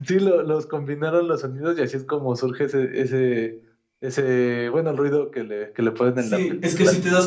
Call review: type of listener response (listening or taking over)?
taking over